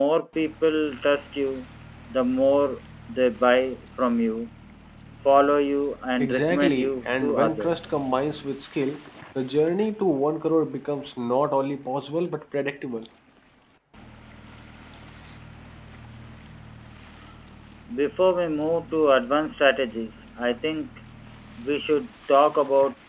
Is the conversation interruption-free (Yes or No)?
No